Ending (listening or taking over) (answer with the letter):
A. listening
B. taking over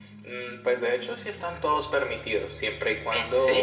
A